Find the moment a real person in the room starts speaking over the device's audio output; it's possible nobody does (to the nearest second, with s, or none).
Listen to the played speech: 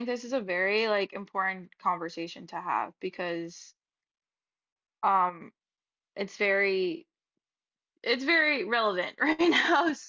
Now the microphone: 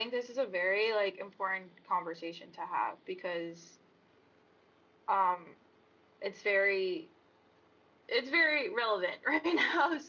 none